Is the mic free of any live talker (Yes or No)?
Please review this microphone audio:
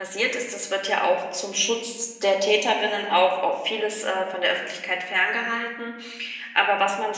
No